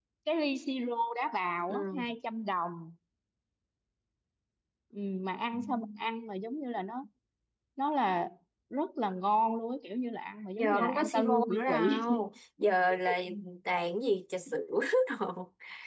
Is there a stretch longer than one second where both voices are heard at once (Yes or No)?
Yes